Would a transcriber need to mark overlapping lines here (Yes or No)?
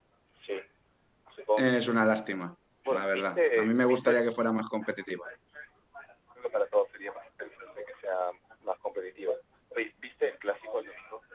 Yes